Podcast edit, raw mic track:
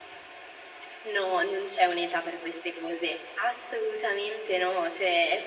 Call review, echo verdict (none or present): present